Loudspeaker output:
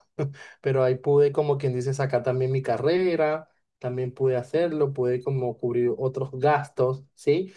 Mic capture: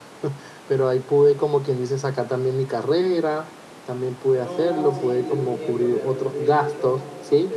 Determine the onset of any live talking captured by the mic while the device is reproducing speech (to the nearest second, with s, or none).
4 s